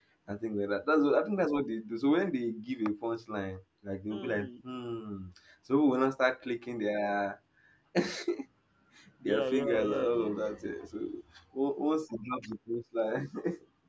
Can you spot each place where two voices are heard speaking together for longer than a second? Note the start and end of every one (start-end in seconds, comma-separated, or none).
9.3-10.5